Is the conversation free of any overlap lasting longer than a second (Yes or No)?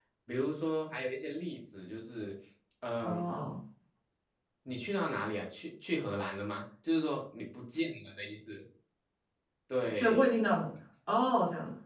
Yes